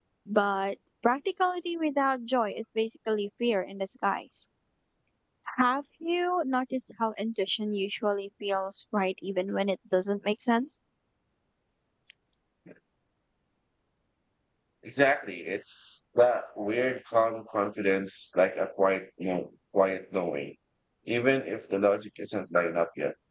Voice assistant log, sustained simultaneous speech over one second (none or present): none